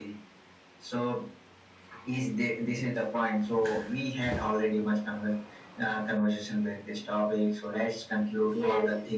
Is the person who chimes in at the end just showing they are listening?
Yes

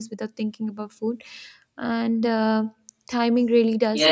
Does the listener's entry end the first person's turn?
Yes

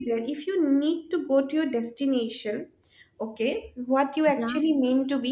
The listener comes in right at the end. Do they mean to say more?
No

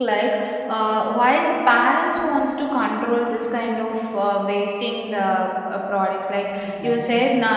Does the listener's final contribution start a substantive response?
No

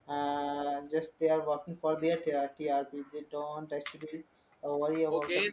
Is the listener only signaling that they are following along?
No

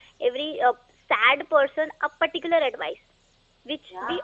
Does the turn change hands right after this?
No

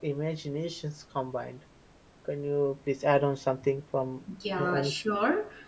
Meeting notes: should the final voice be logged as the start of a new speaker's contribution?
Yes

